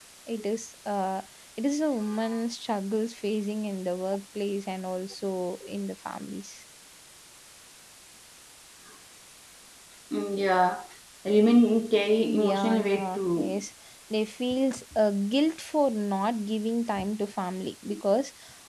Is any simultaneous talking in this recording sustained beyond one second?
Yes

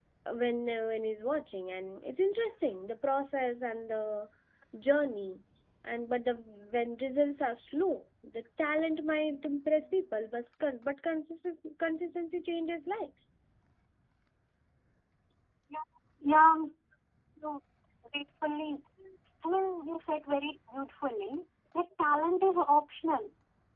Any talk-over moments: No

